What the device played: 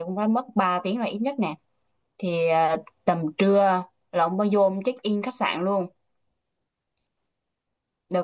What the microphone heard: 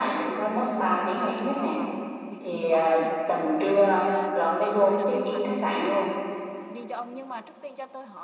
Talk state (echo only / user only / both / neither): both